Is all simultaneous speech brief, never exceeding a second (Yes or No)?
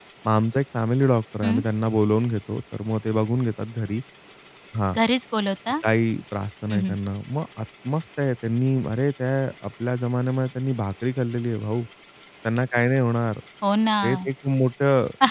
Yes